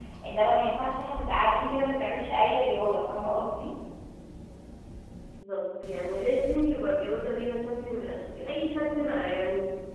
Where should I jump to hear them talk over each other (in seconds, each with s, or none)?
none